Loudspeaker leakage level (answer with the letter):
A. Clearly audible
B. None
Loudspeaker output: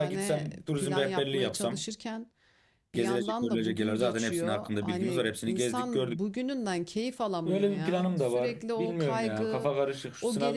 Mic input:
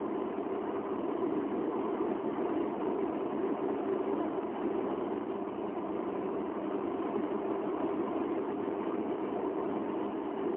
B